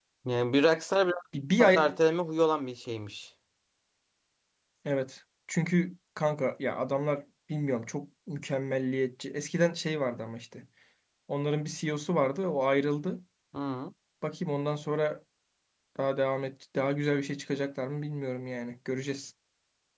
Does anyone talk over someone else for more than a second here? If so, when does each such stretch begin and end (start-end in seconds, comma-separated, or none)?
none